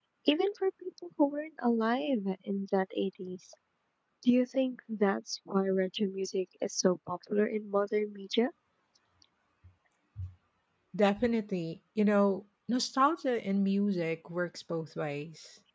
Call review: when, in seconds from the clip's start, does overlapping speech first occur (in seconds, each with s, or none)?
none